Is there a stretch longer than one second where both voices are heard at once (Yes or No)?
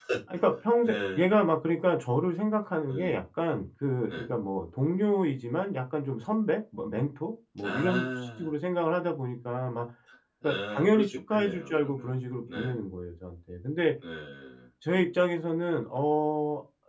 Yes